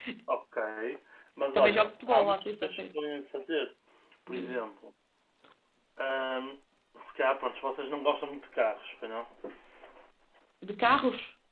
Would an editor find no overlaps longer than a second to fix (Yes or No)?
No